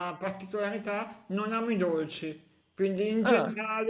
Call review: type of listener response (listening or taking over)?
listening